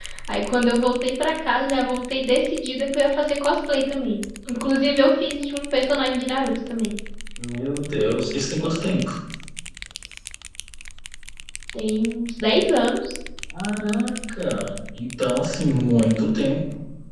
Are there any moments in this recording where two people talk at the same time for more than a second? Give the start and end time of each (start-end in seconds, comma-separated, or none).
none